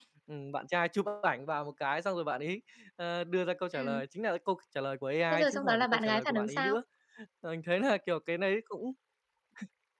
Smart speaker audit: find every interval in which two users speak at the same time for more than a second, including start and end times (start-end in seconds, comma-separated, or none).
5.3-6.8